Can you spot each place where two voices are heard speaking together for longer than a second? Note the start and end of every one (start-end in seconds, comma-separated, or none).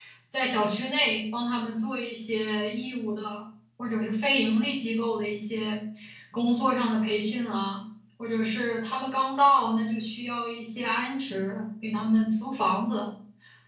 none